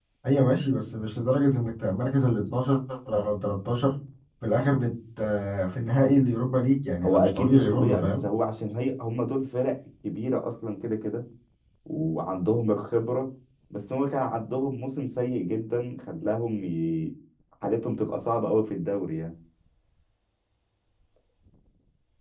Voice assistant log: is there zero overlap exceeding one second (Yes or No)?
No